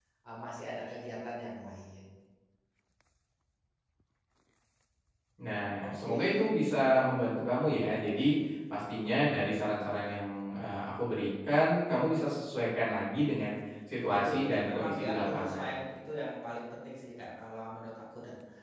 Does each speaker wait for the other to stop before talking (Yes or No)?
No